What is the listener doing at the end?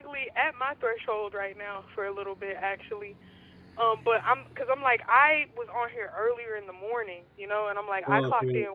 listening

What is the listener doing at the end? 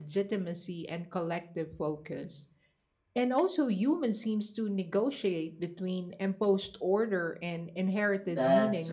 taking over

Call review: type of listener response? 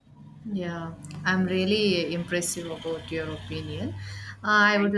listening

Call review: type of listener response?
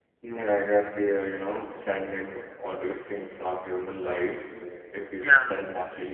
listening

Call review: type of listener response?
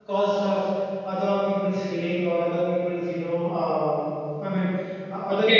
taking over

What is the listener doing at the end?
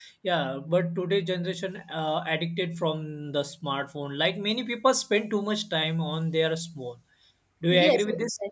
taking over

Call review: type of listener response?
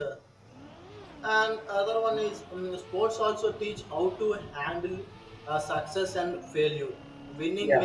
listening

